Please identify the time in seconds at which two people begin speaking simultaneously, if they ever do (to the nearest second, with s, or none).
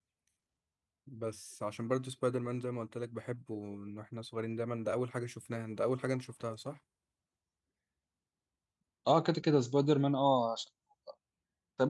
none